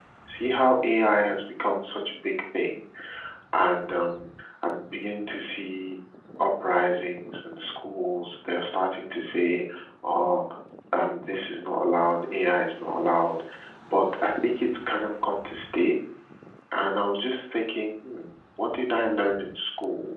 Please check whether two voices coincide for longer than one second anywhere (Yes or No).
No